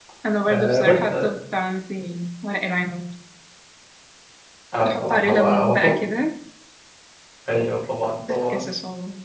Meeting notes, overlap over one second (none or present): present